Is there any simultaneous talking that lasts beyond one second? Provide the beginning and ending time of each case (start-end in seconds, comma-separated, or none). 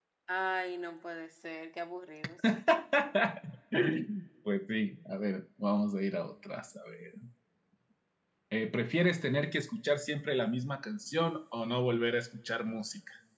none